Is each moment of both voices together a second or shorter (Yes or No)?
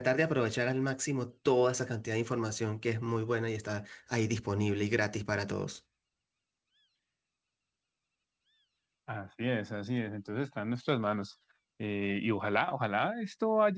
Yes